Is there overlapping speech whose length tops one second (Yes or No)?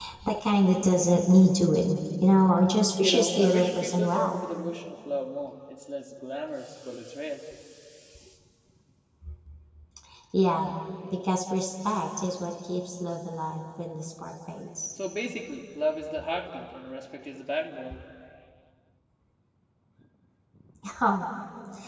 Yes